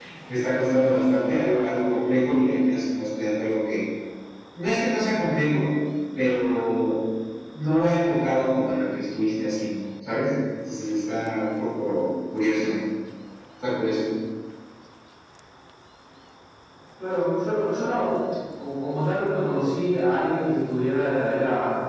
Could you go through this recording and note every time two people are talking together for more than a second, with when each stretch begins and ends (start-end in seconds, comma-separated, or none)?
none